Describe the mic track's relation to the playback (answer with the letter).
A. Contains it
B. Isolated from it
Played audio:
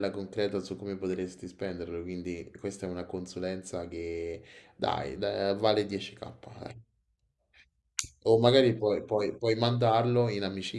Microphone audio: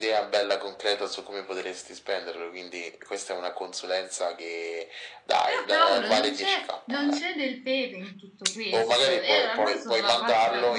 A